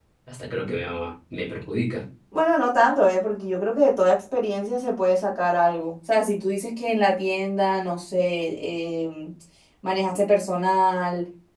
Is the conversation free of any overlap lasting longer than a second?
Yes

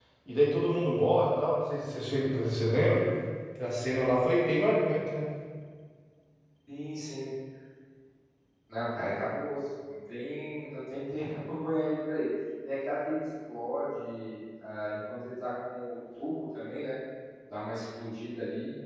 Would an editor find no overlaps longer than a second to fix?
Yes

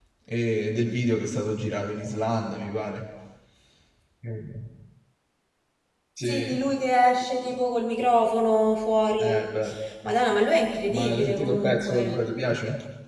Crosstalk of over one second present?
Yes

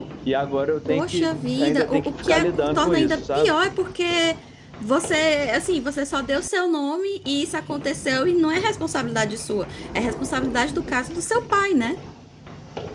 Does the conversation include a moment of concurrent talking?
Yes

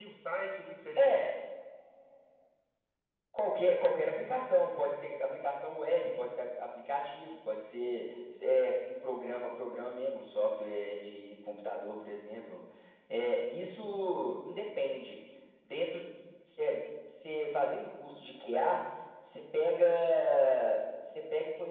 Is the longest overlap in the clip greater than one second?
No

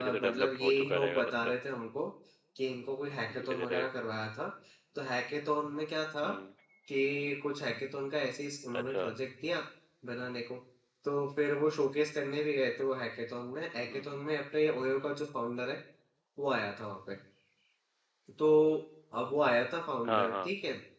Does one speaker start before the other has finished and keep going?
Yes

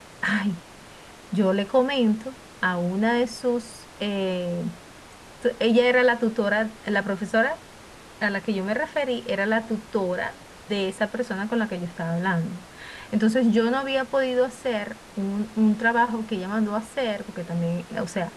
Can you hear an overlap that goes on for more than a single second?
No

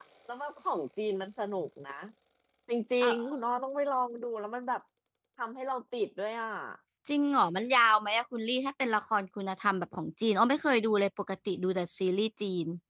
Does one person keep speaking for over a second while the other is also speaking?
No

